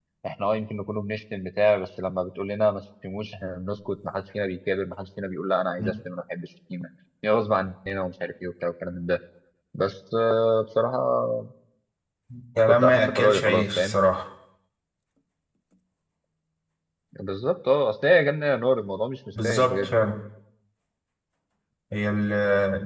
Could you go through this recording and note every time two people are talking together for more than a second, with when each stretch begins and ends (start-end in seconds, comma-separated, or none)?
12.7-14.0